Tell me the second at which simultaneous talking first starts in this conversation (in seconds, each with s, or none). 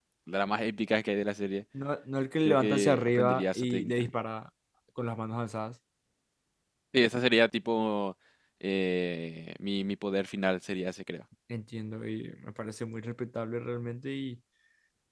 2.4 s